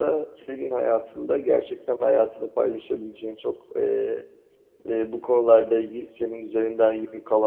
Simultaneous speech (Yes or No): No